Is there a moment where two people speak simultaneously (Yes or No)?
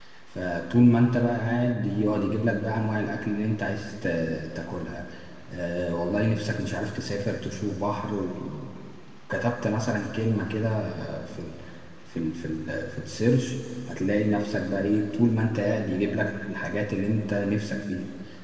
No